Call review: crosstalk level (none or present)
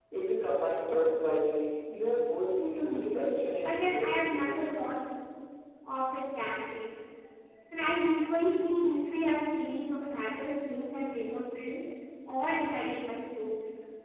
present